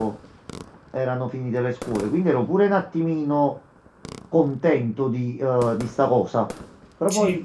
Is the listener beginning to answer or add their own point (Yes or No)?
No